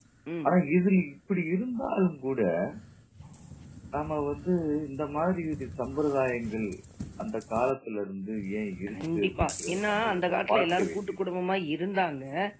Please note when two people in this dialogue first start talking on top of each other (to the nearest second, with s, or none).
9 s